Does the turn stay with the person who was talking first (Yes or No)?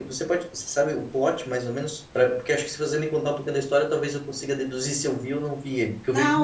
No